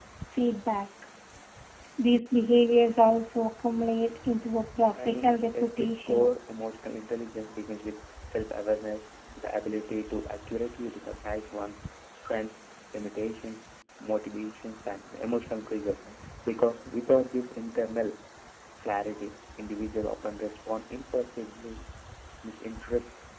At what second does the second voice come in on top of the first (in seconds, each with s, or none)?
4.9 s